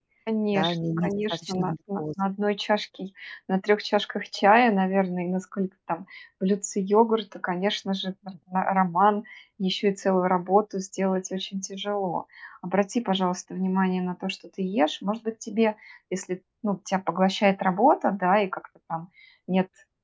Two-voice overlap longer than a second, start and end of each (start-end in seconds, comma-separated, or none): 0.5-2.0